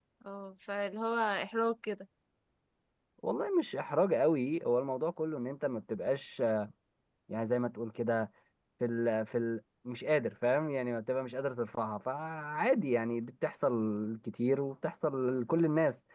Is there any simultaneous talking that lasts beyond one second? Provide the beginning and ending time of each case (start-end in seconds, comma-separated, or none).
none